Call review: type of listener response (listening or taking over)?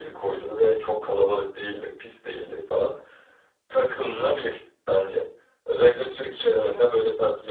listening